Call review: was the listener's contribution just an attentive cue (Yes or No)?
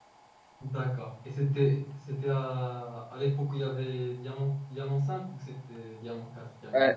No